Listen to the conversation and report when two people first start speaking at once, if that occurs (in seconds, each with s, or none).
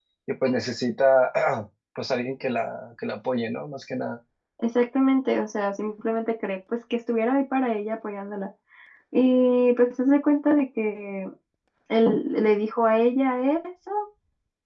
none